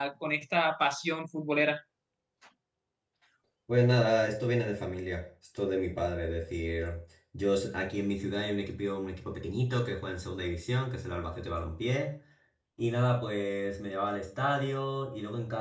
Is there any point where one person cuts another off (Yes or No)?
No